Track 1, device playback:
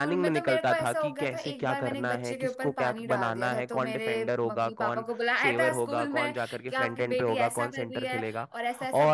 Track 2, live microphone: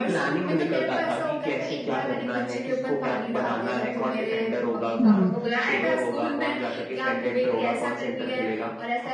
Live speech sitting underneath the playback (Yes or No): No